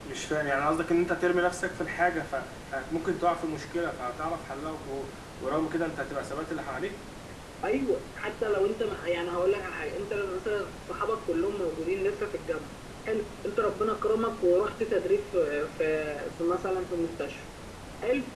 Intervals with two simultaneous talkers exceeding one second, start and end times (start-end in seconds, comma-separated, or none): none